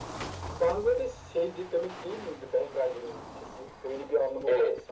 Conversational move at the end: taking over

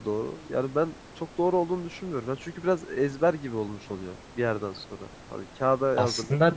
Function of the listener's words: listening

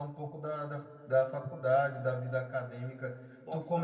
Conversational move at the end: listening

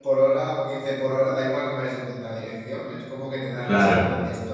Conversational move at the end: listening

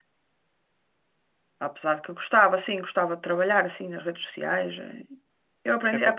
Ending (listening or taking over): listening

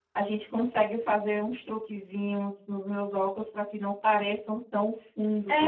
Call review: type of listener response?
taking over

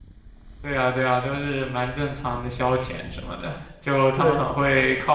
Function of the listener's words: listening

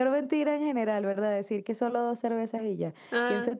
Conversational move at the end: listening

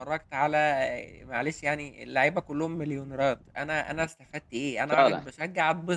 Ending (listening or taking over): listening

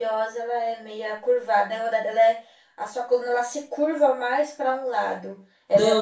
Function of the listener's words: taking over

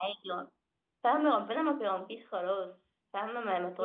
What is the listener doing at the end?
taking over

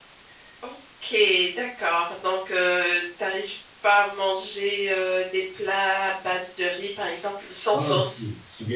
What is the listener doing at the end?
taking over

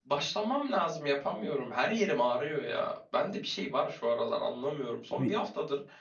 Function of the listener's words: listening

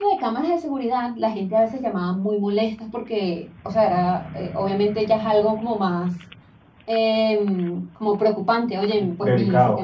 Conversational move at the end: taking over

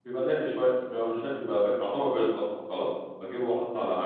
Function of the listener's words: listening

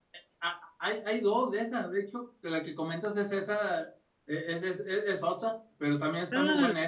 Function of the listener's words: listening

